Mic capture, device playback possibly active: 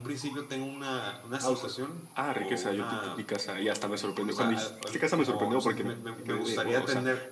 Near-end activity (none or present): none